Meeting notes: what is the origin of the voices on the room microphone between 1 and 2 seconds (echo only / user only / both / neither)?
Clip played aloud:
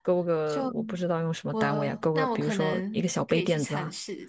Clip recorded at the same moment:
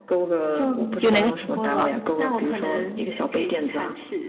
both